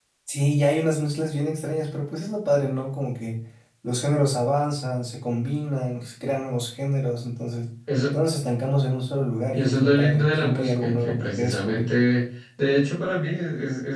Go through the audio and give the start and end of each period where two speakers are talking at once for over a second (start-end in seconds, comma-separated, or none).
9.5-11.8